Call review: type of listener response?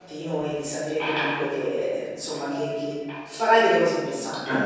taking over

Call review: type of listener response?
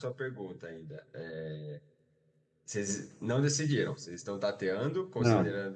listening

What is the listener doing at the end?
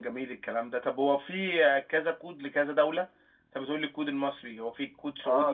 taking over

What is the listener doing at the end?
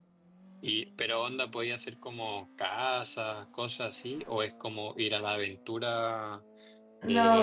taking over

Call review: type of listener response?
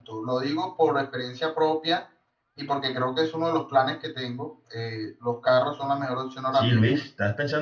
taking over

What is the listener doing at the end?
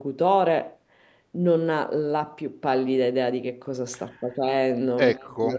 taking over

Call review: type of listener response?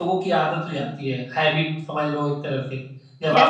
taking over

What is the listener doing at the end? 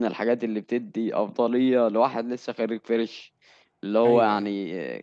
listening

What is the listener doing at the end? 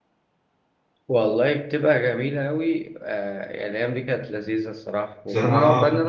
listening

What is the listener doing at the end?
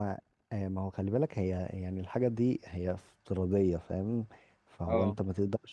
listening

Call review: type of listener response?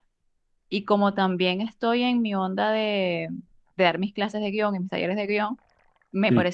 listening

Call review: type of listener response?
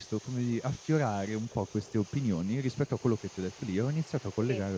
listening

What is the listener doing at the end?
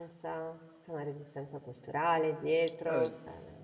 taking over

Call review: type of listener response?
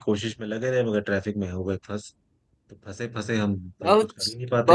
taking over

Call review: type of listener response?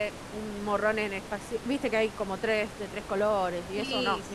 taking over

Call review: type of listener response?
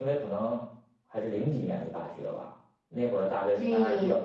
listening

